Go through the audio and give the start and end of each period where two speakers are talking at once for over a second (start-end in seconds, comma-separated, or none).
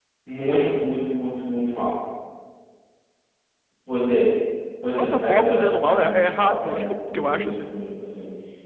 5.0-7.7